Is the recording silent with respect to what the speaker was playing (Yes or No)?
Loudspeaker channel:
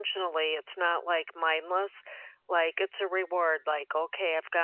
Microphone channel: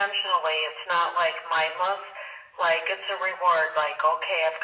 No